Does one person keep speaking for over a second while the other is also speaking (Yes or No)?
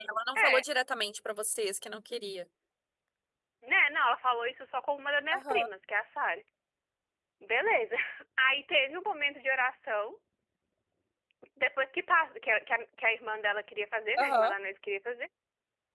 No